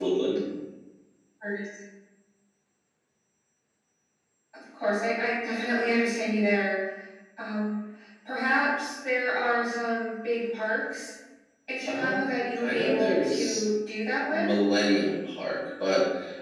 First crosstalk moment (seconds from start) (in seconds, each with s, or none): 11.9 s